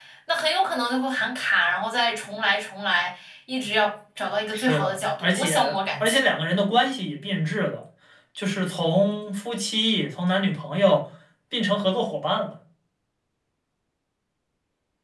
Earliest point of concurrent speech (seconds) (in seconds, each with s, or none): 4.5 s